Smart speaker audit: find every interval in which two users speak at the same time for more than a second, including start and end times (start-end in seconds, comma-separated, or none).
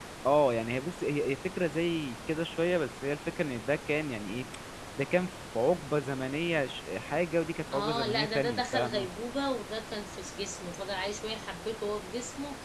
7.7-9.1